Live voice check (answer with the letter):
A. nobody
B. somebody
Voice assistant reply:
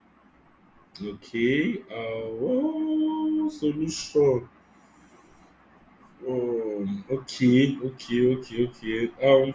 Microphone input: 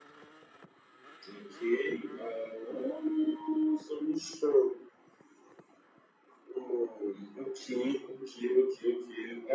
A